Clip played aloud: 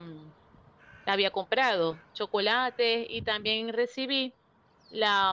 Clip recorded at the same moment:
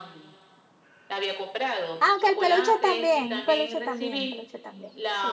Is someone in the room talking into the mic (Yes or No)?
Yes